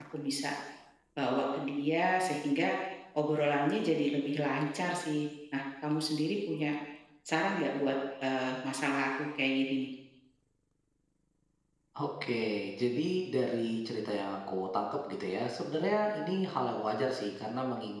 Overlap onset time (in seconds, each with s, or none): none